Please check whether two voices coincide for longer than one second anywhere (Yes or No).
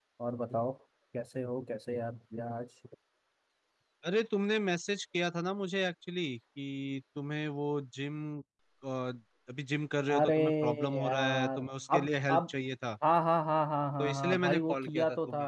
Yes